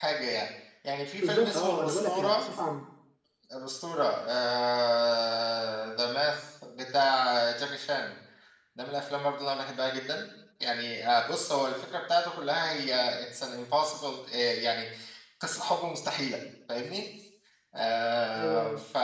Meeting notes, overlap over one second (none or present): present